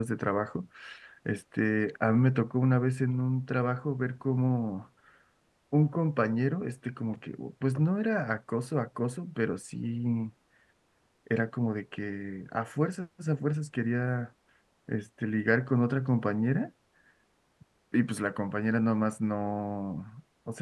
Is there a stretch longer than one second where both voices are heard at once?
No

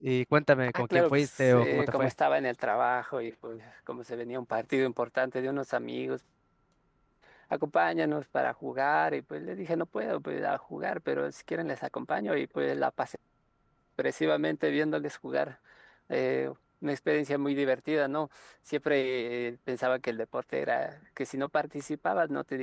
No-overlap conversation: No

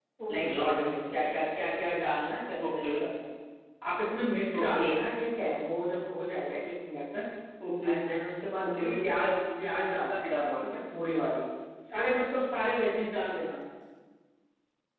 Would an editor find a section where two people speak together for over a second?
Yes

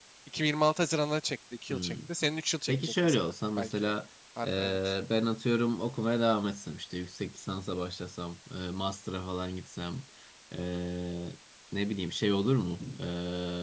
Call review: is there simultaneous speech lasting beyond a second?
Yes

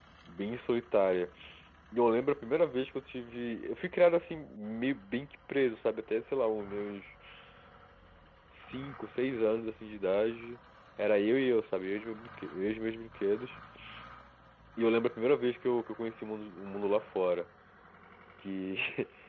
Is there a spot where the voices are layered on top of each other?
No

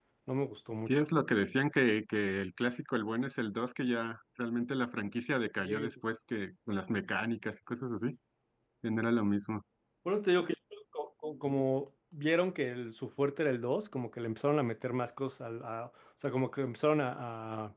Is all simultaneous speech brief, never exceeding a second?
Yes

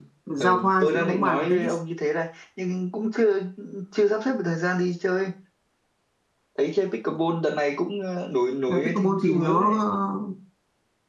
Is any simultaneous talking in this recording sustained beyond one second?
Yes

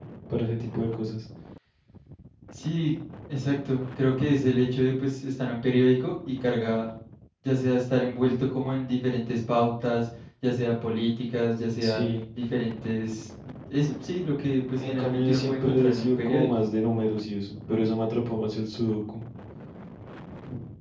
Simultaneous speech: Yes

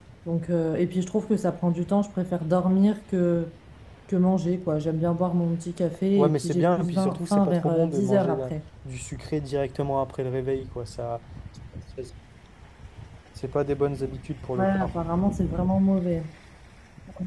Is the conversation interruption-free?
No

